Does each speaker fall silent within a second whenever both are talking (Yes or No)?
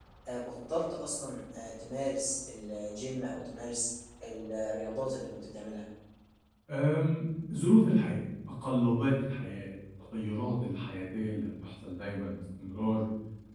Yes